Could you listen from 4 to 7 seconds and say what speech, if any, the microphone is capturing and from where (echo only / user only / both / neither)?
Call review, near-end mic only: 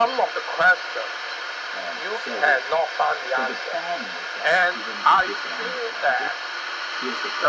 both